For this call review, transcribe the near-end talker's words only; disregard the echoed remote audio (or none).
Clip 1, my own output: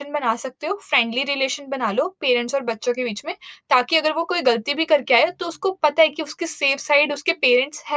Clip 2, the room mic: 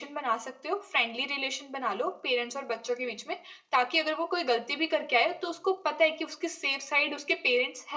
none